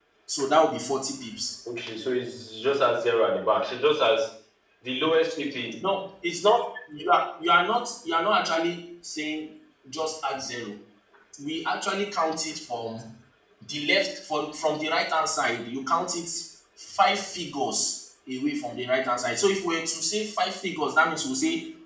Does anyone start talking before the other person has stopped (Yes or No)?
No